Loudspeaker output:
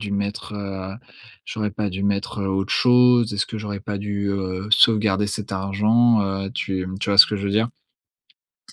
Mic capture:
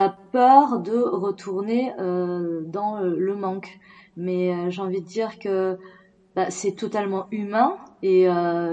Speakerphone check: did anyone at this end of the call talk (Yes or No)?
Yes